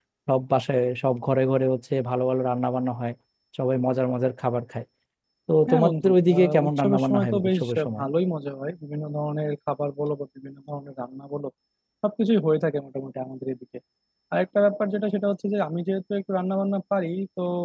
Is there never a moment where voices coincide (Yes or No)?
No